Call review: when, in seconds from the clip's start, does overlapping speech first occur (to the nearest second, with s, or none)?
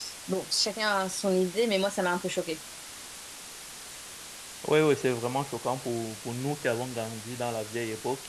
none